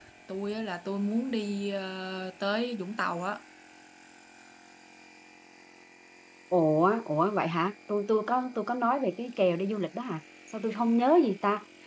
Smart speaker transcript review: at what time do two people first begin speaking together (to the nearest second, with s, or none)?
none